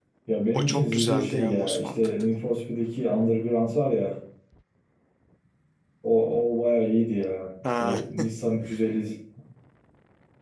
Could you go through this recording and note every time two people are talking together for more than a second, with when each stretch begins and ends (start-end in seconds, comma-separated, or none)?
0.5-2.1